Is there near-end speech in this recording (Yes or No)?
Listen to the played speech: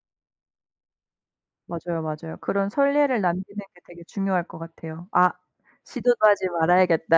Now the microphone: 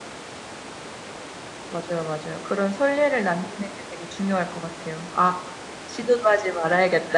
No